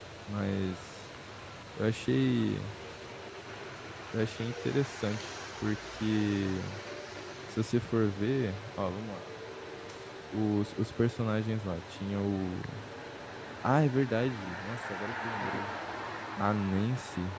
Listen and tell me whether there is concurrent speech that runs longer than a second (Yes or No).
No